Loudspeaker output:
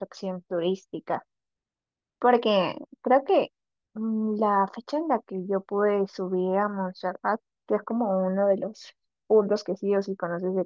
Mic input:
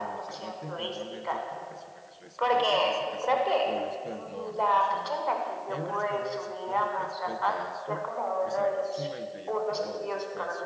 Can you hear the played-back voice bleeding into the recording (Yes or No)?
Yes